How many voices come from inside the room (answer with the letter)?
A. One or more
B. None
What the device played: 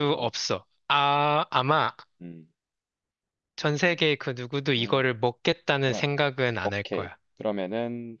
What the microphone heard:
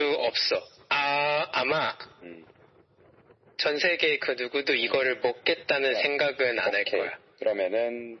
B